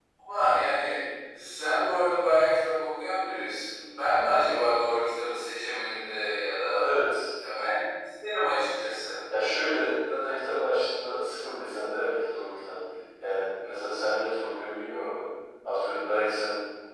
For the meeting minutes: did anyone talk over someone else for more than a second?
No

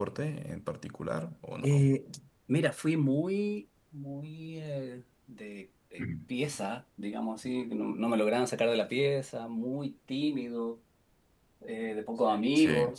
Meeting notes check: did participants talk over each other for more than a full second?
No

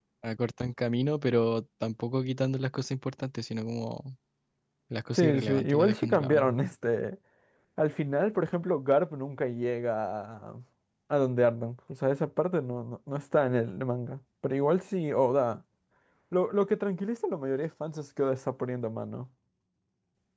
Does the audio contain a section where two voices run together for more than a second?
Yes, from 5.1 s

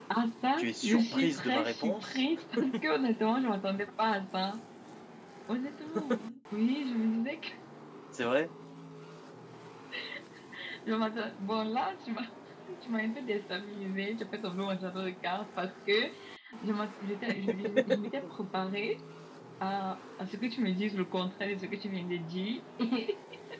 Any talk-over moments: Yes, from 0.6 s

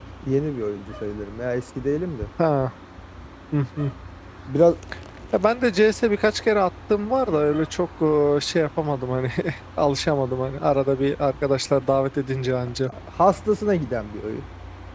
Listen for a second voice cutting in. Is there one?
No

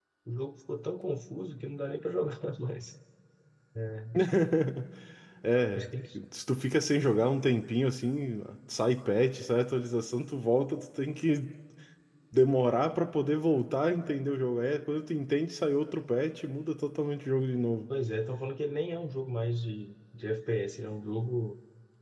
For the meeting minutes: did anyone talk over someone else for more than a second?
No

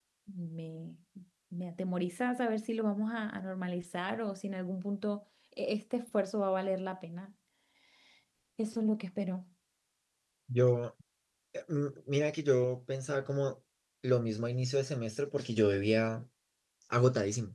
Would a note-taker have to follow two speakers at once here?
No

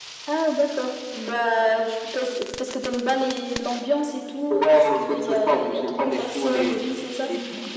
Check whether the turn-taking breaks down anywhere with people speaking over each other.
Yes, from 4.5 s

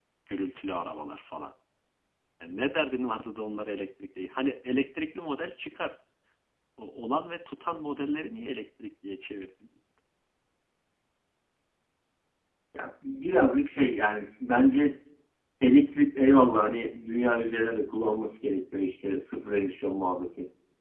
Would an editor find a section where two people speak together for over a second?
No

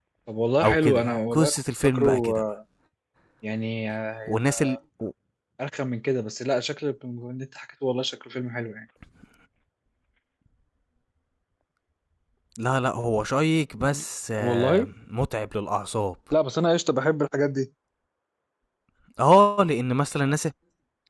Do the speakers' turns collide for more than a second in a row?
Yes, from 0.6 s

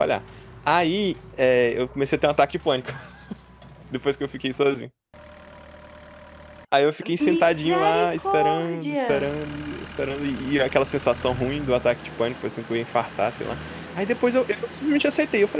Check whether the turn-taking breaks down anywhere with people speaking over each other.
Yes, from 7.3 s

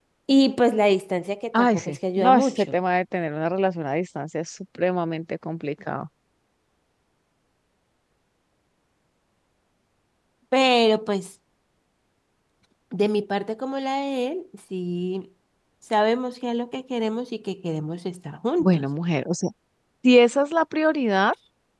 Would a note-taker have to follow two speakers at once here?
Yes, from 1.5 s

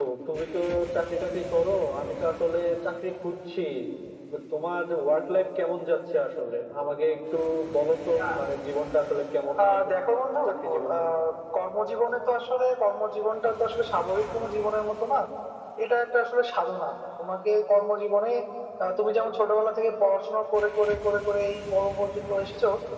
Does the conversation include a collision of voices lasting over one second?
No

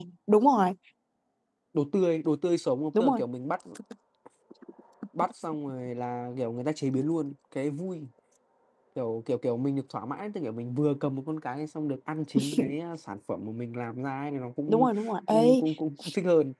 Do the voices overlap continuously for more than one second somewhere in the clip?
No

